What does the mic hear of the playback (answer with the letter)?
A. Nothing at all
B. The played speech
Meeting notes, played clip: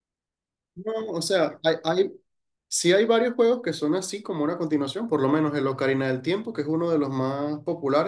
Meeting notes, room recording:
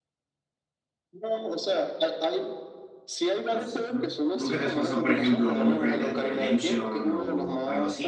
B